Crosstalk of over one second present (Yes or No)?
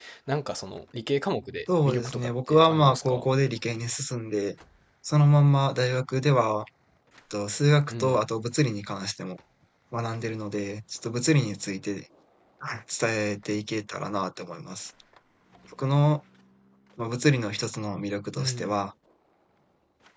Yes